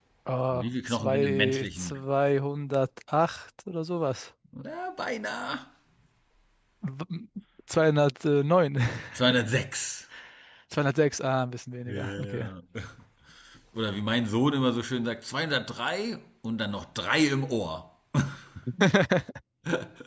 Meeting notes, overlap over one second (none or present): present